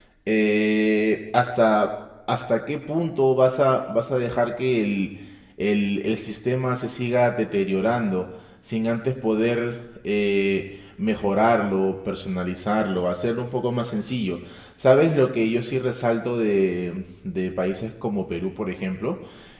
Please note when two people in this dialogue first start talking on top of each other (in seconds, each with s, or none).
none